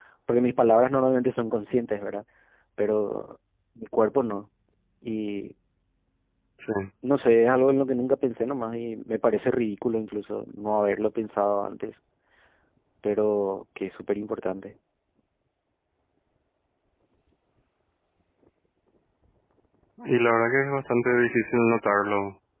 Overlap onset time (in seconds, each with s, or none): none